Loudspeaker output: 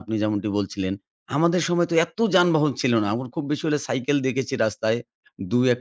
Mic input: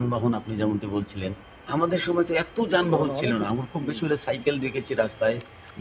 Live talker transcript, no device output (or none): এ ধরনের অনেক কিছু হুম,